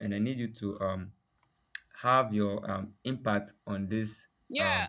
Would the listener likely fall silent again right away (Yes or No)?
No